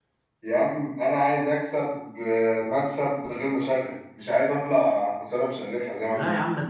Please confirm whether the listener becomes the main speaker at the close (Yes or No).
Yes